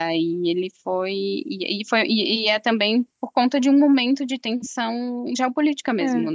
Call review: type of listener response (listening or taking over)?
taking over